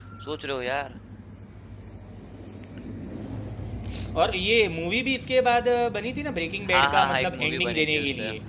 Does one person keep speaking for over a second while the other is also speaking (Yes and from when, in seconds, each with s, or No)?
Yes, from 6.7 s